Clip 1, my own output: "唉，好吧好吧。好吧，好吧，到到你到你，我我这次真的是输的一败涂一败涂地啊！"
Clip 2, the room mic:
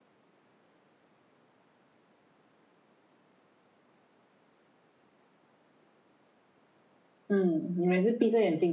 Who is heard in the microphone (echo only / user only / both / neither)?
user only